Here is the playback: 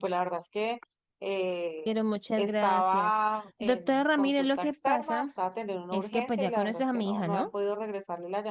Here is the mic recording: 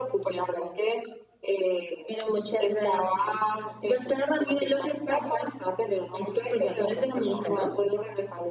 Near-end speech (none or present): none